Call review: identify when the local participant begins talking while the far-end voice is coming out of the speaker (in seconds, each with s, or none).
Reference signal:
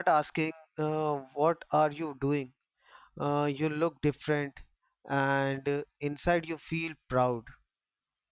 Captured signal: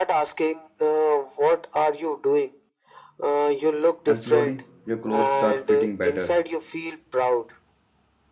4.1 s